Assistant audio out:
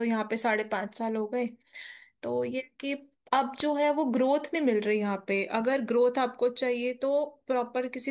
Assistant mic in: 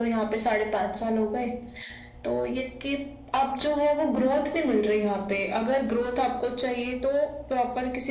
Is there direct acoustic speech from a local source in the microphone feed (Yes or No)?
No